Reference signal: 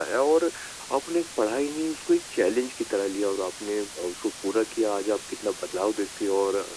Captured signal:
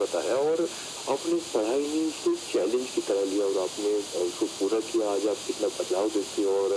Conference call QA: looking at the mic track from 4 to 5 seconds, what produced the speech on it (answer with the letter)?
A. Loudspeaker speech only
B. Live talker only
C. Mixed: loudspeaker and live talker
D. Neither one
A